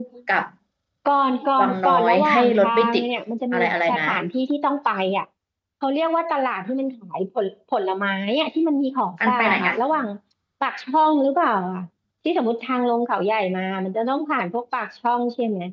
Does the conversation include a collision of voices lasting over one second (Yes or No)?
Yes